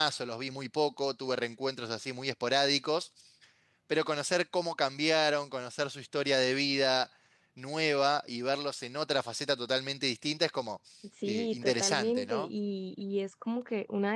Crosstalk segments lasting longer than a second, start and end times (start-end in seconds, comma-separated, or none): 11.2-12.5